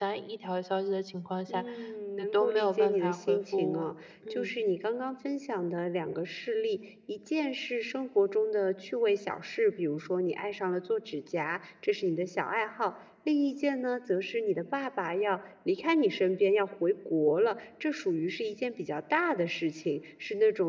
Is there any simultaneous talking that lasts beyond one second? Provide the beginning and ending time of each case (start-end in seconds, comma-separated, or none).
2.2-3.9